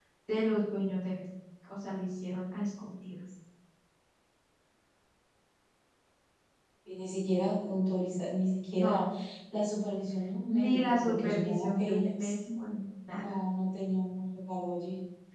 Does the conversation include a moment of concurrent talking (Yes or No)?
Yes